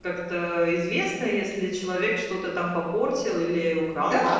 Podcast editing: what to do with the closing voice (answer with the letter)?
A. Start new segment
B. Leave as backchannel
A